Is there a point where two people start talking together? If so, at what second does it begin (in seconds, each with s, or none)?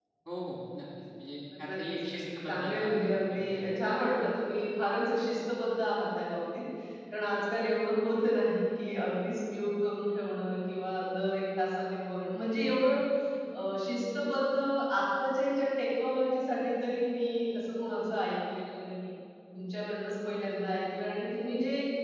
1.6 s